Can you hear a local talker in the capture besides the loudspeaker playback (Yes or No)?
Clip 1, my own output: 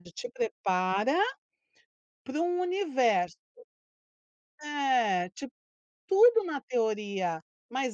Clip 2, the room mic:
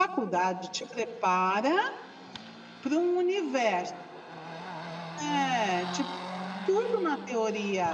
No